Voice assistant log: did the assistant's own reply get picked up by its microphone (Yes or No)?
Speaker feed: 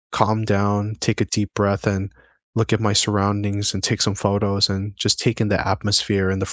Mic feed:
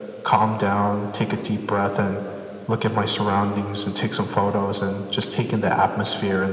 Yes